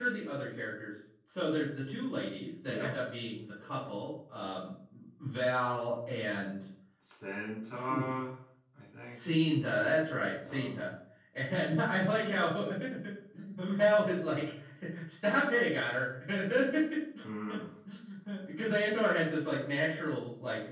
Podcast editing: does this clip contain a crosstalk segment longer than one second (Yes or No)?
No